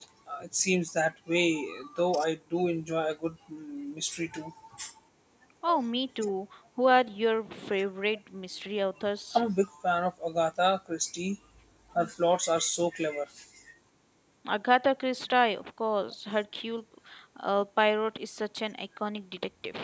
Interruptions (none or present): none